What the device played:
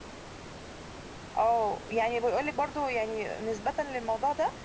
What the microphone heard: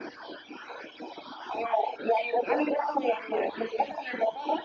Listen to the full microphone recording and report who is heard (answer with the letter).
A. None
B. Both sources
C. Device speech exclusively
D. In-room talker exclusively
C